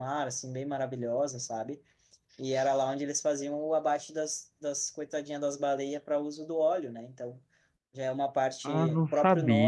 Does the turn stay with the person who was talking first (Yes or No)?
No